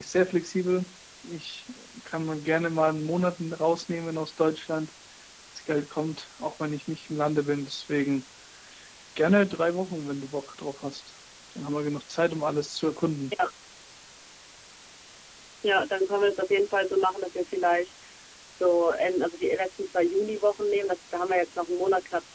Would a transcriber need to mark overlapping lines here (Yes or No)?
No